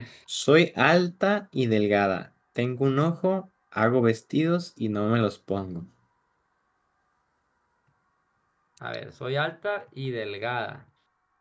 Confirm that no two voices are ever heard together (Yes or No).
Yes